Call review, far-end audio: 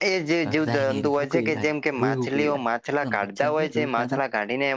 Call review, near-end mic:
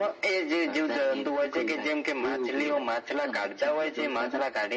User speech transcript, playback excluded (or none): none